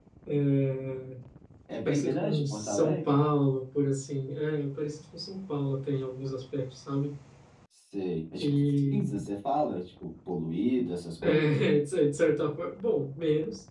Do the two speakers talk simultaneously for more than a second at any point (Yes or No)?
Yes